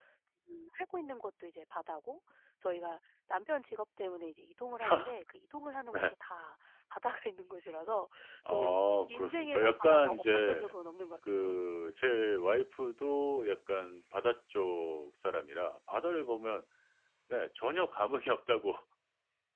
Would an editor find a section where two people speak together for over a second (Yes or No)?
Yes